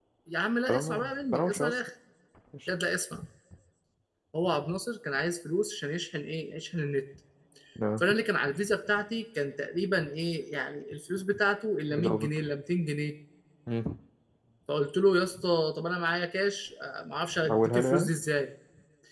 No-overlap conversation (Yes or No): No